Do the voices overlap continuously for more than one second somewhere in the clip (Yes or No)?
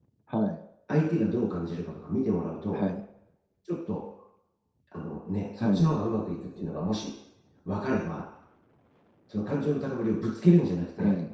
No